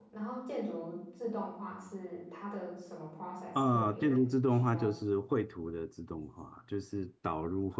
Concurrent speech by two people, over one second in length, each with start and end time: 3.5-4.9

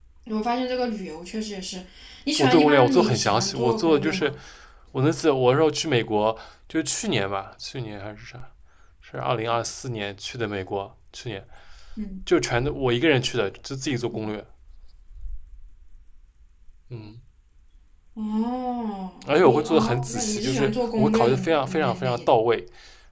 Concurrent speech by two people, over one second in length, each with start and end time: 2.4-4.3, 19.3-22.3

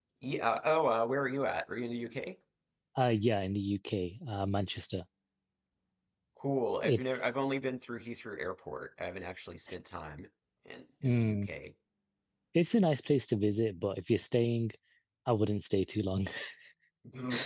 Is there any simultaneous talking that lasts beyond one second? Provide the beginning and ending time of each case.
none

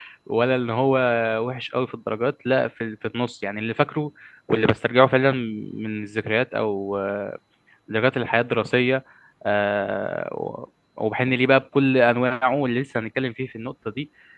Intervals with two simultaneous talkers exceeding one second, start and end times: none

